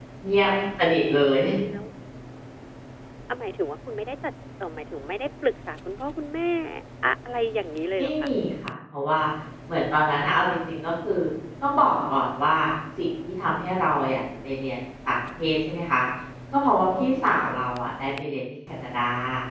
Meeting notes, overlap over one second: none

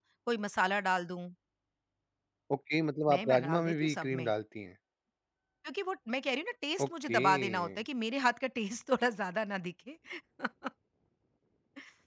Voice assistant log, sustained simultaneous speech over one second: present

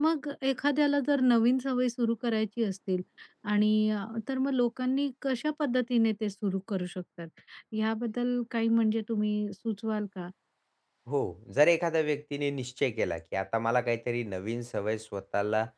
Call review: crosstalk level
none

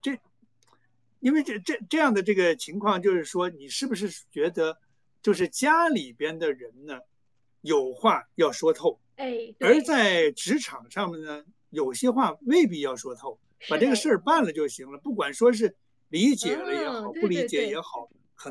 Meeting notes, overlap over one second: present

